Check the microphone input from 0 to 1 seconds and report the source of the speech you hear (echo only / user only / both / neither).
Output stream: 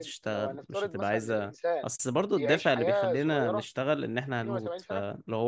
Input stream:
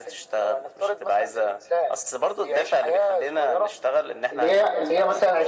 echo only